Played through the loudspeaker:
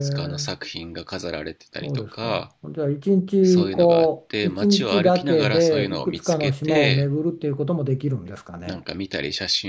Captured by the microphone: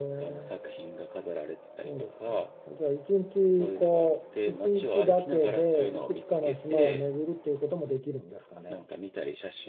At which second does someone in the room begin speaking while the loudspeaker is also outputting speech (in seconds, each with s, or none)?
none